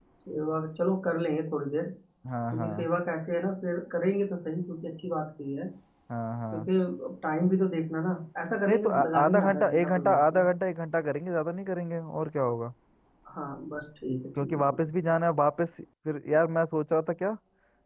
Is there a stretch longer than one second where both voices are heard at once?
Yes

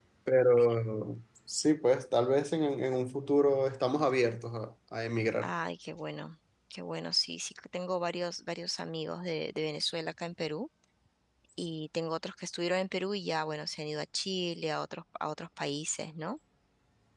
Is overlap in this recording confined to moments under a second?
Yes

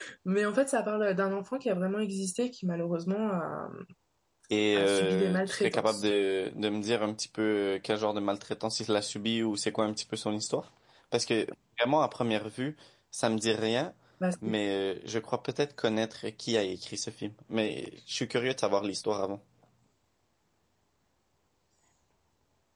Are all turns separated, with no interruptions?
No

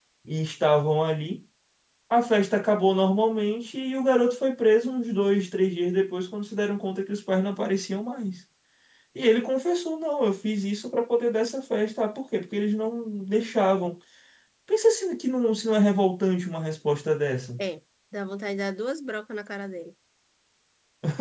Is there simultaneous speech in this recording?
No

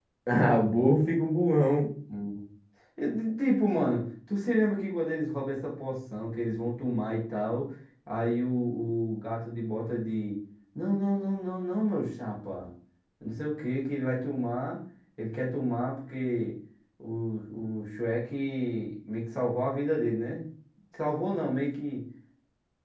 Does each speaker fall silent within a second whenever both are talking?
Yes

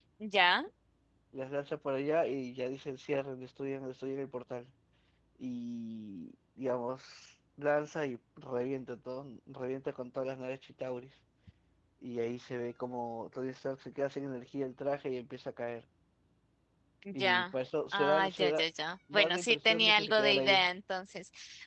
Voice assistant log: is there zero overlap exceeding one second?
No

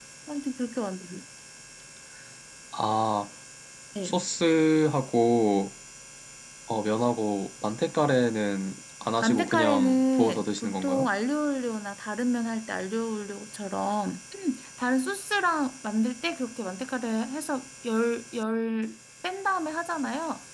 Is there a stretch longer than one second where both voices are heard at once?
Yes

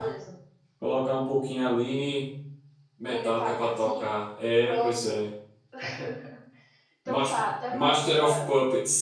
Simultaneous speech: Yes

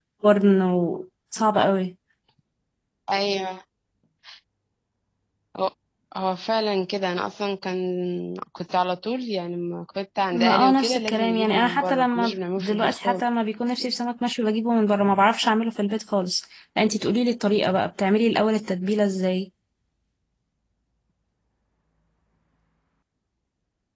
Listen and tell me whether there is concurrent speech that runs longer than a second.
Yes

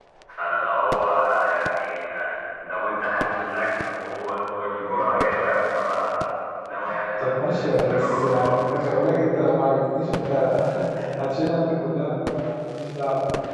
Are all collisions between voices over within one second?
No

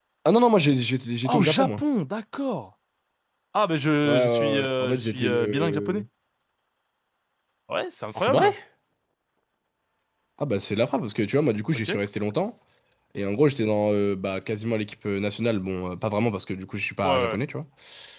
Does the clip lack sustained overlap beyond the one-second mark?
No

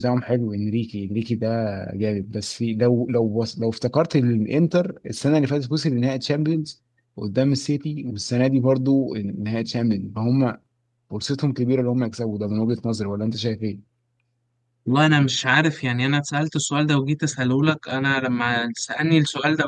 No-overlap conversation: Yes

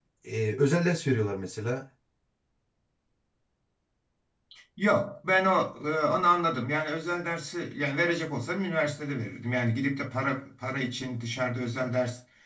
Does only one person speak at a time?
Yes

